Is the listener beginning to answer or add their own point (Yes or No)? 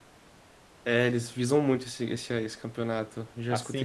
Yes